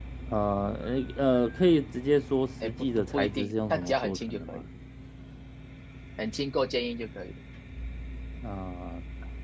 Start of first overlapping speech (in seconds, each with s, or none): 2.6 s